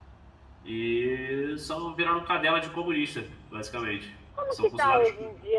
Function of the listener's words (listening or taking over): taking over